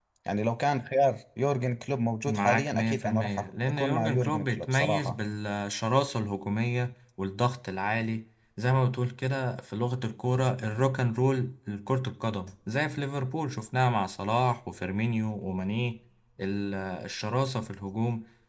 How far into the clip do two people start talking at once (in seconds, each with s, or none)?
2.3 s